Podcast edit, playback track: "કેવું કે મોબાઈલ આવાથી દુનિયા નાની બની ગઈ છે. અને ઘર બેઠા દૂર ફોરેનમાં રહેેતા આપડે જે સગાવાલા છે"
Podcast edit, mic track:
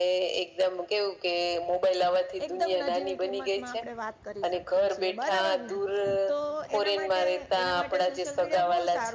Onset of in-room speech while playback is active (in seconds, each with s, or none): 2.5 s